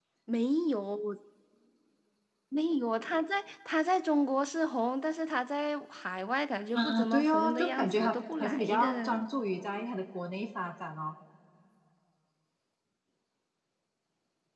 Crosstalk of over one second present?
Yes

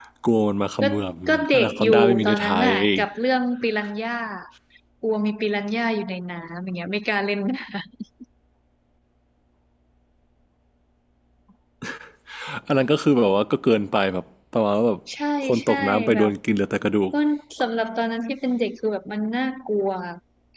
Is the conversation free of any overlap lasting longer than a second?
No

